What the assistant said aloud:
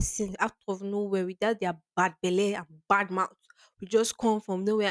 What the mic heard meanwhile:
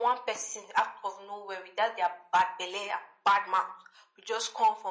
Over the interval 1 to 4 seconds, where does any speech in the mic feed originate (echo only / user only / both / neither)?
echo only